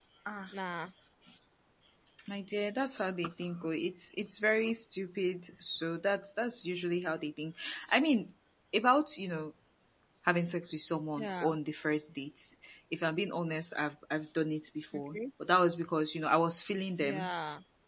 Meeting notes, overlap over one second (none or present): none